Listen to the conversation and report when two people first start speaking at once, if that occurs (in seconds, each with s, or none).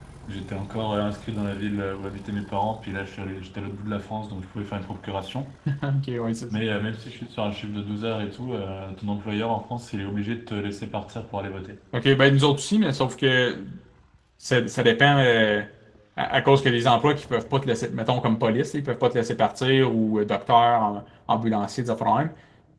none